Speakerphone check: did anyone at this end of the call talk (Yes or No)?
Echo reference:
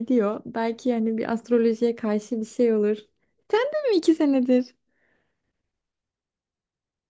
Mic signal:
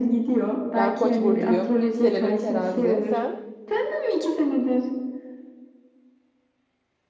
Yes